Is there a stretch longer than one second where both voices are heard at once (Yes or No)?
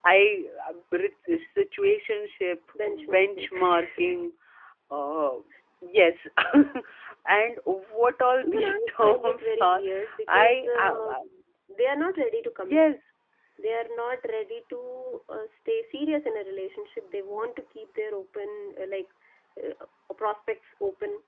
Yes